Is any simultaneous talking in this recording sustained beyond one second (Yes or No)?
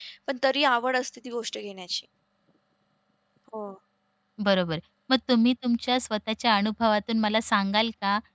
No